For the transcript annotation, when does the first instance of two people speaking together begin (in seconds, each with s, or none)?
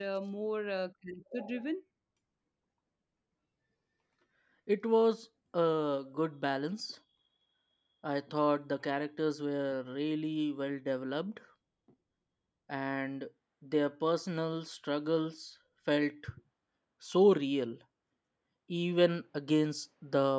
none